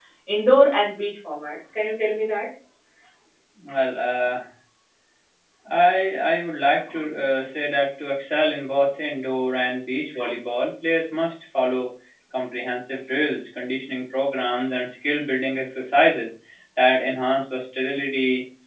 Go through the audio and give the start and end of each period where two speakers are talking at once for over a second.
none

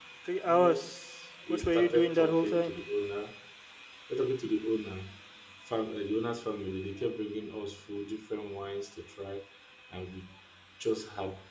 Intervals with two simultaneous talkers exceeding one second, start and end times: 1.5-2.7

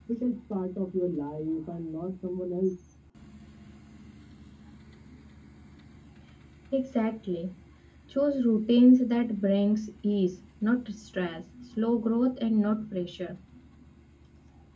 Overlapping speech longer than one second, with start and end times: none

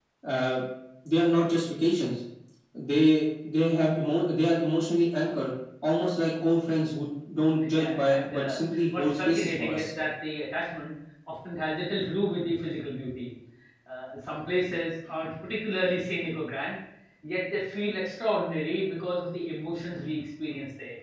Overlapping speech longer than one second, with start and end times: 7.6-9.9

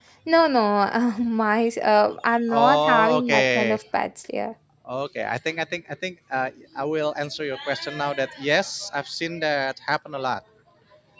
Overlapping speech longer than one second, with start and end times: 2.5-3.8

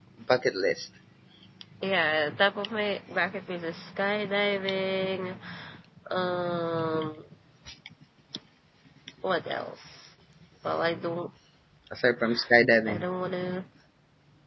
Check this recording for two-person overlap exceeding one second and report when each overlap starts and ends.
none

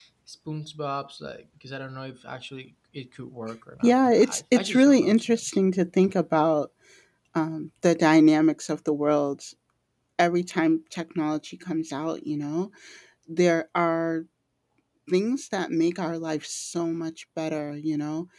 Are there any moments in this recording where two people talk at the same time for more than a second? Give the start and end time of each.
3.8-5.6

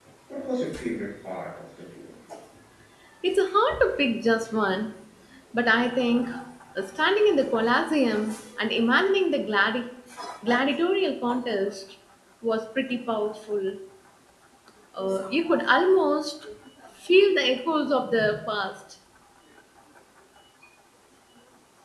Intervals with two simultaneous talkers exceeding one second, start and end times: none

